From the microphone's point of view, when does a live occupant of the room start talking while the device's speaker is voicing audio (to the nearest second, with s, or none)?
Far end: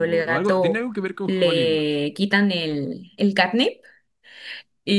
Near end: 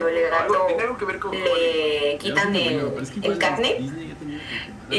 2 s